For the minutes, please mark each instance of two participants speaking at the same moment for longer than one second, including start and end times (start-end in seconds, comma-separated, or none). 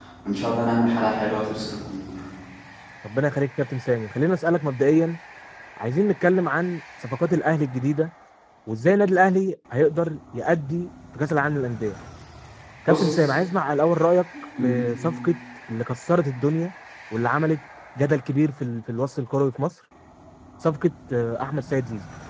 none